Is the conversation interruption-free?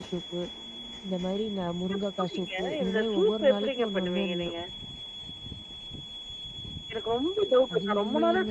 No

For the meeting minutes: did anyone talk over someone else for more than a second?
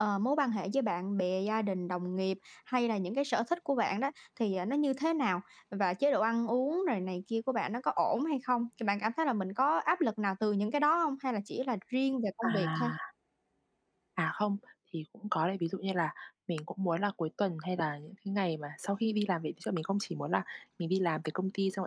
No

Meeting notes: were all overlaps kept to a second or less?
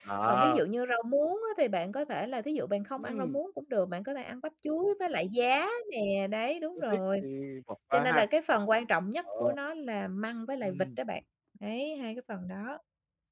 Yes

